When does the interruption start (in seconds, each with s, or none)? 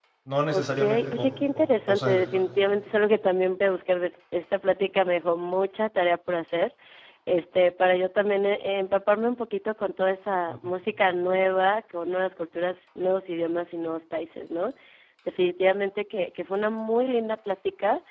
0.5 s